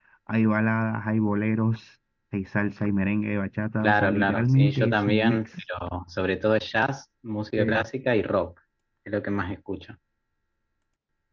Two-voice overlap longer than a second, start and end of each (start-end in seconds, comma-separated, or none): 3.8-5.5